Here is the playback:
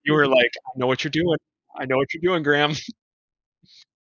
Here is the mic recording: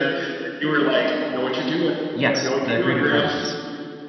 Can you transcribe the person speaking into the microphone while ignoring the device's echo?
Yes, the Greater Dryas.

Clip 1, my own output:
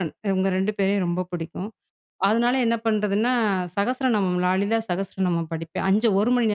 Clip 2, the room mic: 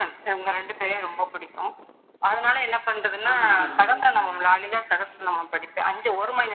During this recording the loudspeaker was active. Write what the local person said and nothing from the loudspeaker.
ஆஹா! அருமைங்க.

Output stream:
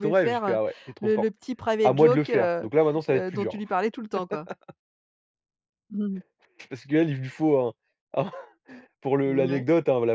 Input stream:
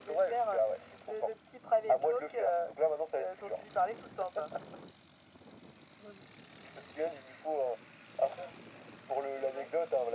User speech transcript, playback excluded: none

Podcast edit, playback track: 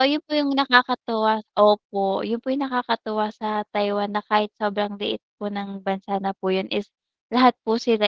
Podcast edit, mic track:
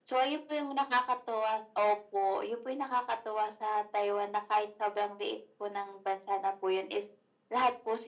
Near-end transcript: none

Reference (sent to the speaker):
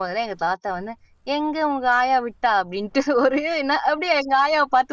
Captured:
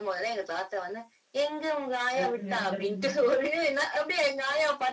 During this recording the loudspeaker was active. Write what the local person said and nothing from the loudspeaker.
சிறப்புங்க, சிறப்புங்க.

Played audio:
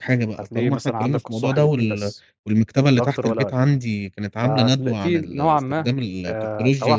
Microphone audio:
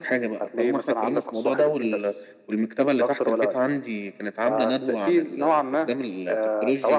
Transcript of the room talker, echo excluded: none

